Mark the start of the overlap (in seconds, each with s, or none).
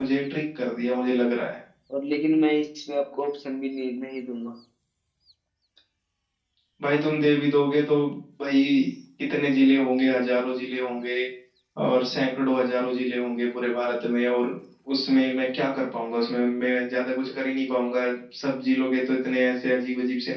none